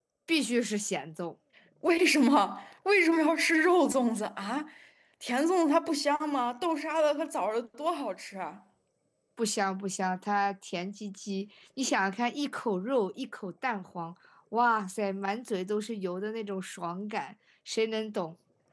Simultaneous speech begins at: none

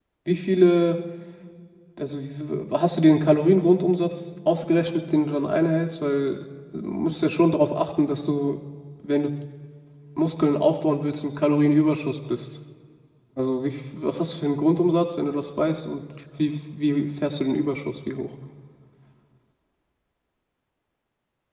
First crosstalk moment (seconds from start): none

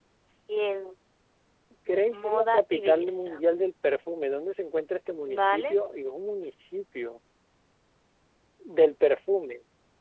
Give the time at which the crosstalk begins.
2.1 s

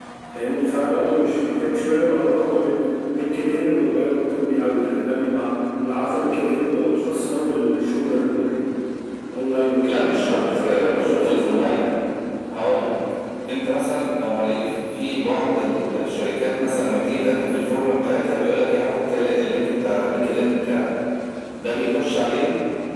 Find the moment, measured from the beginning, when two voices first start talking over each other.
9.9 s

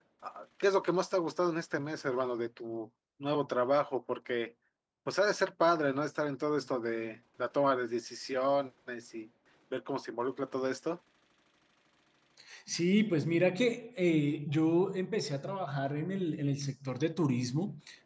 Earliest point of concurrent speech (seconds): none

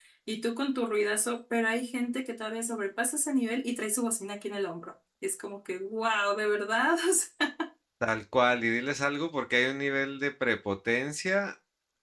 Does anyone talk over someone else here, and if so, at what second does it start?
none

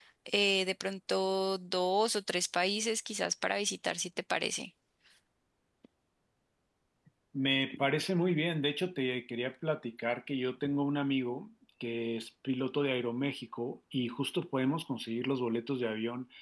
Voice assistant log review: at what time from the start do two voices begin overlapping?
none

